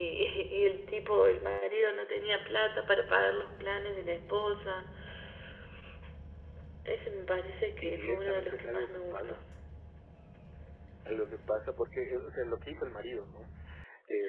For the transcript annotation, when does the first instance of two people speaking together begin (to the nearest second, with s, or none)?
8 s